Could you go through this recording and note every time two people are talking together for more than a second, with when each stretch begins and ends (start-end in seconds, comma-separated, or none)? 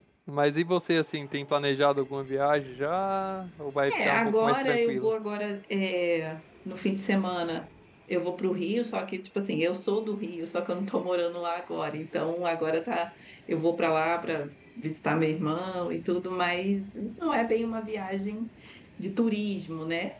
3.9-5.1